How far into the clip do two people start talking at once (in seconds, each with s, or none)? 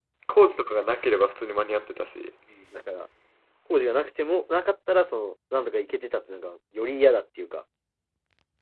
none